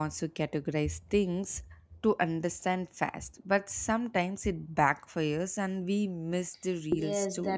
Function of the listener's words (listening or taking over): taking over